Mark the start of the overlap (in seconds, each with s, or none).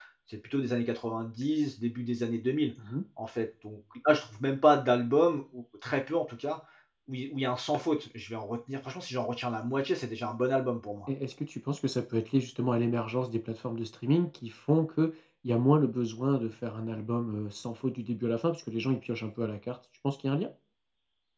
none